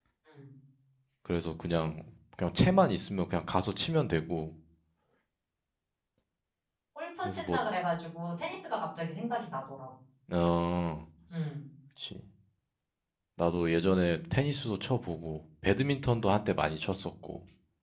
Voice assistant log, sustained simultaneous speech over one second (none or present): none